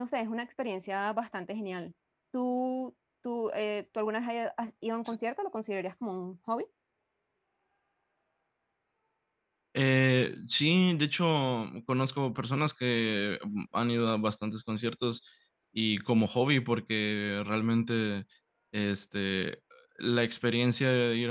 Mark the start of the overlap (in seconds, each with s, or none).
none